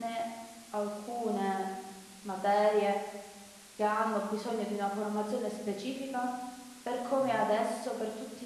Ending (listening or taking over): listening